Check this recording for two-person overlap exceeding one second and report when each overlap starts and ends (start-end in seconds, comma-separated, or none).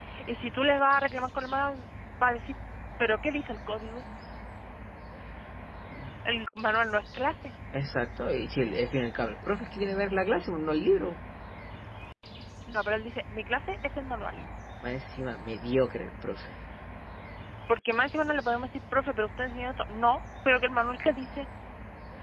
none